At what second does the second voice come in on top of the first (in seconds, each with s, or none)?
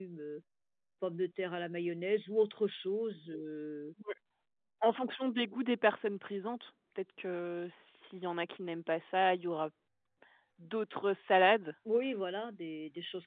none